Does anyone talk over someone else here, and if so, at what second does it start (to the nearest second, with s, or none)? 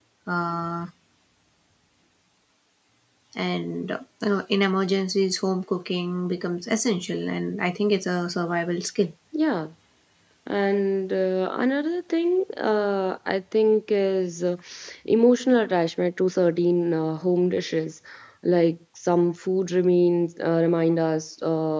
none